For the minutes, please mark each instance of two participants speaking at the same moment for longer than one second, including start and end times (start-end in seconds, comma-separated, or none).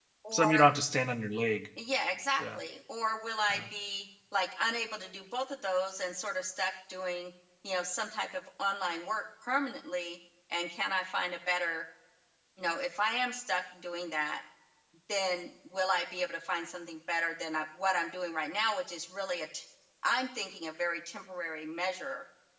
none